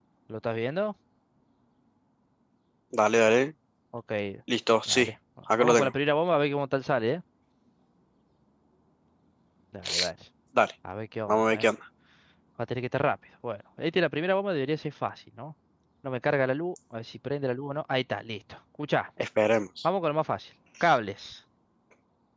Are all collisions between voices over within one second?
Yes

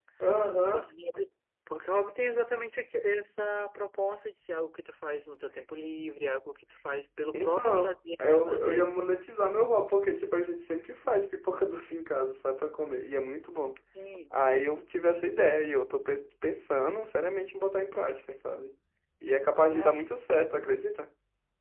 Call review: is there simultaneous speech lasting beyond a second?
Yes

